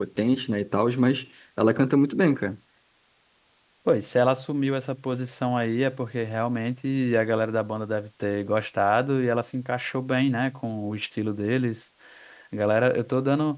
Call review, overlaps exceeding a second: none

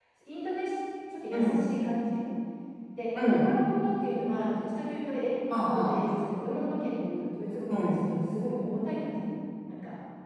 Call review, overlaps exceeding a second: none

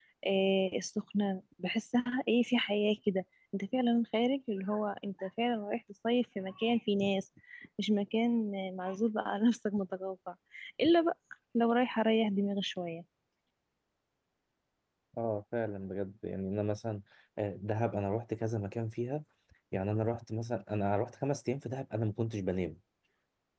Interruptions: none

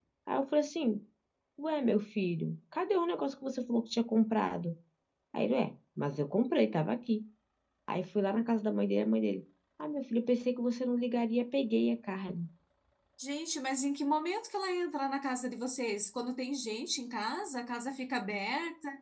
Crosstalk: none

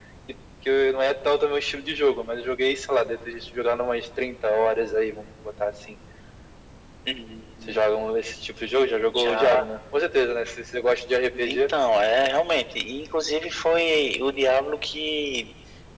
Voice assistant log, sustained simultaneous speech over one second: none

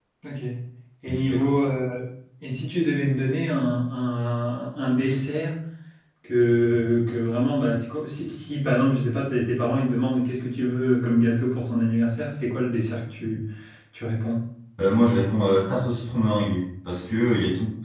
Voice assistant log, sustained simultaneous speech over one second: none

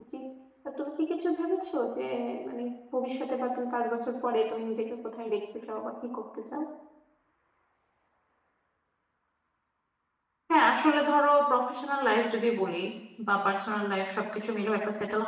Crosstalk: none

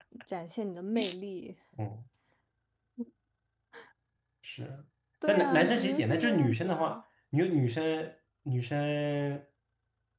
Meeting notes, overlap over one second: present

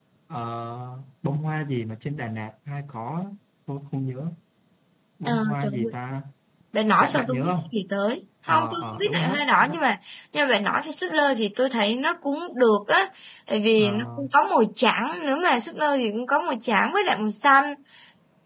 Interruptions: present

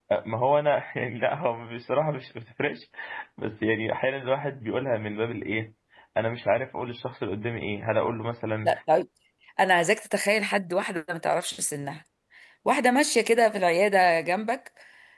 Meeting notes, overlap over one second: none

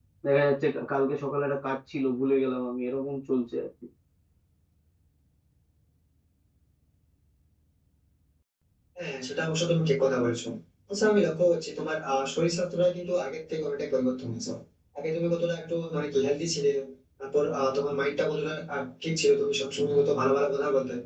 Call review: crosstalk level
none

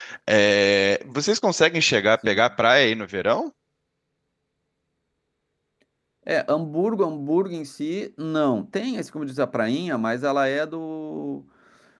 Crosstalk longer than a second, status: none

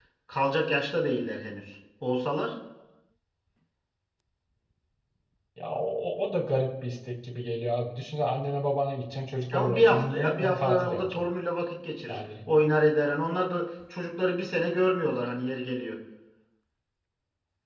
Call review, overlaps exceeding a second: present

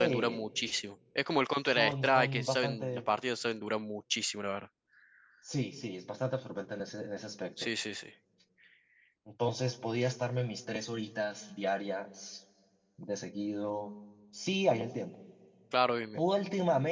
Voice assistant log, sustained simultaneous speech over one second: present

